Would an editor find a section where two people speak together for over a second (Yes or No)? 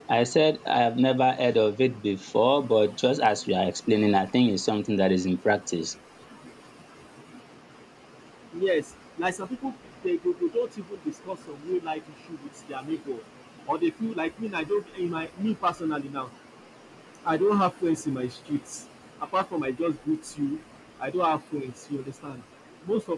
No